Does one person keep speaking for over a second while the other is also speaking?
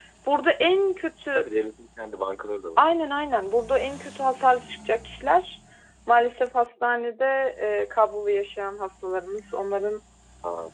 No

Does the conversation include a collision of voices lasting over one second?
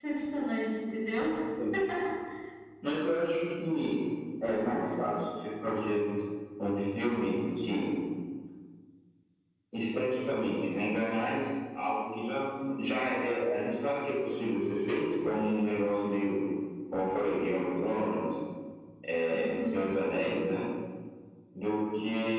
No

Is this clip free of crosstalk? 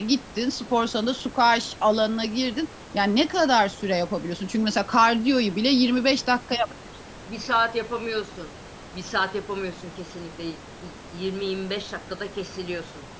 Yes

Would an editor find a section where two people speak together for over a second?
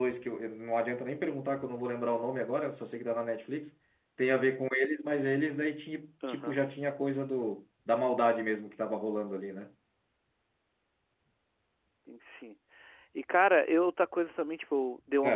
No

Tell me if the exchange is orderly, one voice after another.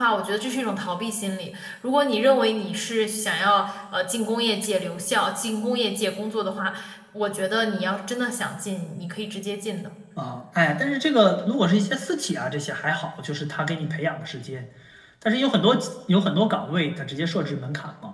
Yes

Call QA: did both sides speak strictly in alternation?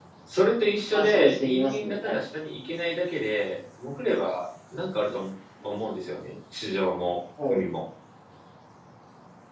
No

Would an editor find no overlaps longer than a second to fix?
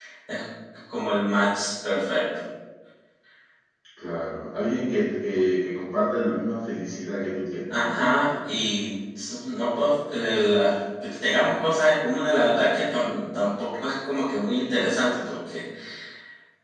Yes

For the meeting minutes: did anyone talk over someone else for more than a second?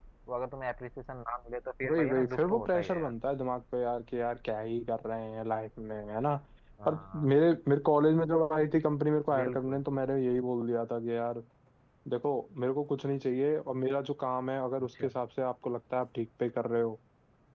Yes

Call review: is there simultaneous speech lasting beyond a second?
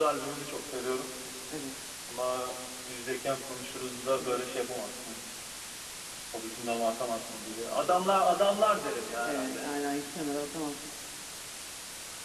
No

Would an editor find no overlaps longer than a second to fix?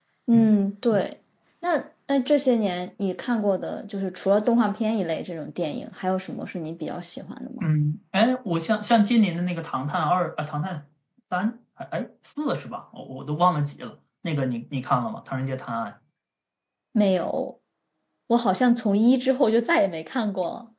Yes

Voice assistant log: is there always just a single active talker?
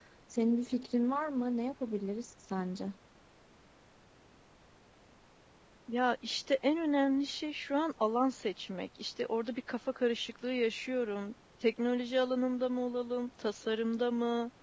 Yes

